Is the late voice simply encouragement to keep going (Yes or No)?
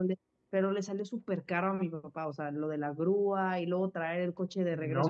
No